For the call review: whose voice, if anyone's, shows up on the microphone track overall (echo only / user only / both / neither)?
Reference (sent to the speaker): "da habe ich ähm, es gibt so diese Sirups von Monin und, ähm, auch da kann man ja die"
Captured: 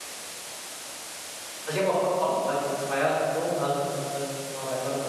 user only